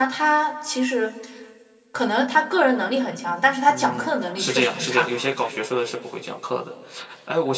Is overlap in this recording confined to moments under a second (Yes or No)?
No